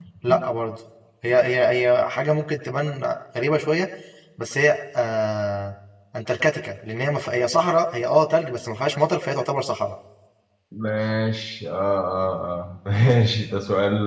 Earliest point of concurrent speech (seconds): none

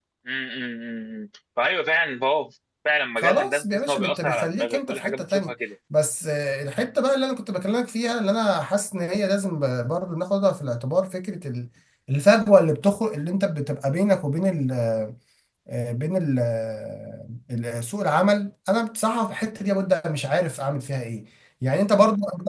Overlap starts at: 3.2 s

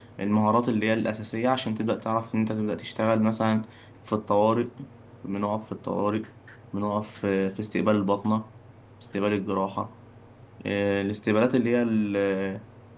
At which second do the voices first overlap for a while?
none

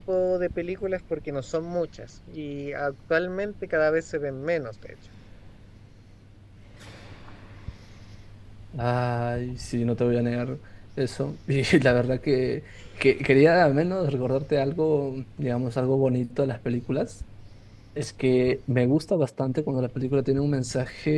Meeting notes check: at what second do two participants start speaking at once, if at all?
none

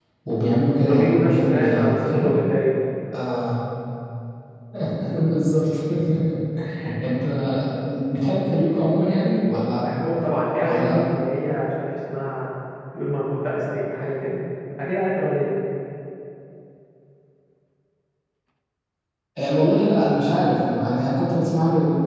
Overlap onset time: 0.8 s

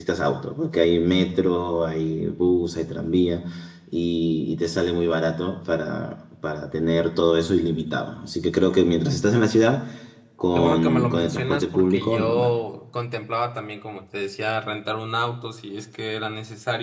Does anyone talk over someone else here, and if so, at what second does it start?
10.5 s

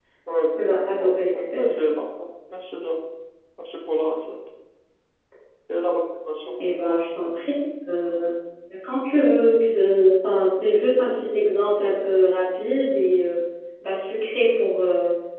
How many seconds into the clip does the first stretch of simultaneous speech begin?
0.6 s

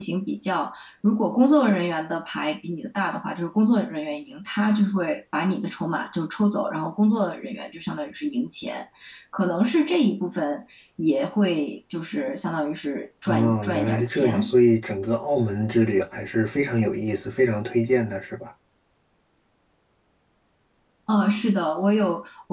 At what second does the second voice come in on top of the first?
13.3 s

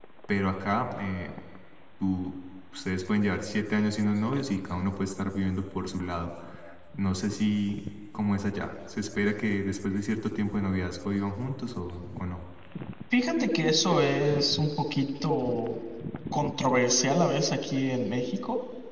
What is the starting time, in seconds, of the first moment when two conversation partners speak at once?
none

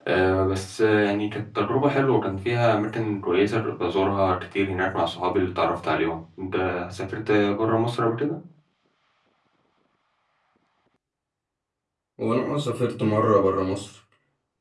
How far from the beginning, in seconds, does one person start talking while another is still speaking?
none

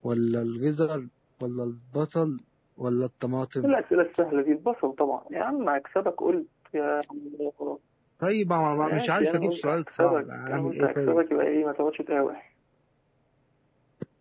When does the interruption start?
8.8 s

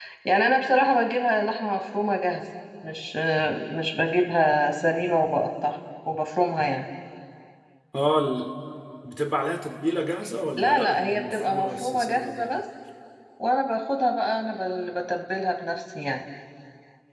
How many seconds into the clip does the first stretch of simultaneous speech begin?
10.6 s

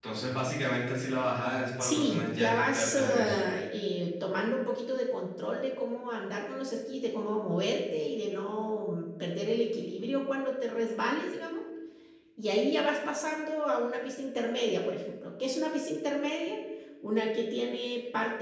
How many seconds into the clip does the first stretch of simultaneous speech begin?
1.8 s

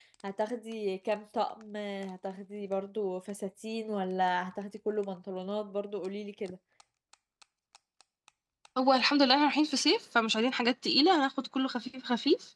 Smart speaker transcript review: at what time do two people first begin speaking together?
none

